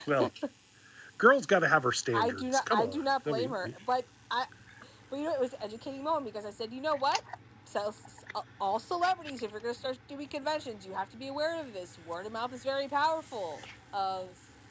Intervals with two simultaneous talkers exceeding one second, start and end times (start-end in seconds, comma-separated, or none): 2.1-3.7